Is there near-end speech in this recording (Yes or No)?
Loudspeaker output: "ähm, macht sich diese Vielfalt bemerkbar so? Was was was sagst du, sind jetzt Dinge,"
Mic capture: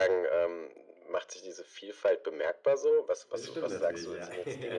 Yes